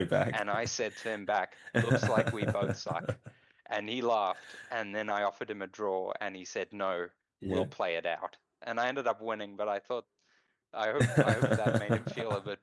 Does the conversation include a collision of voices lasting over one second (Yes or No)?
Yes